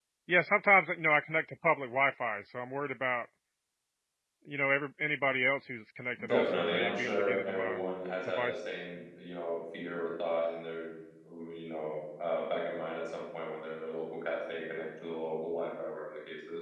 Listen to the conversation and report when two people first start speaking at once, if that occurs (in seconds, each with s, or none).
6.3 s